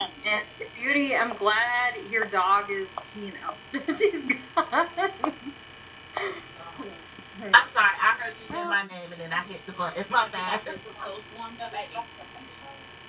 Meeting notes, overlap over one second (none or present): none